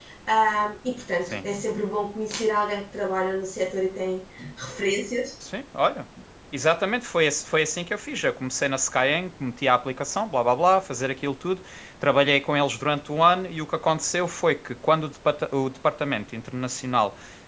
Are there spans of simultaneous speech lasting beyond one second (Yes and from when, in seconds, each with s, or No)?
No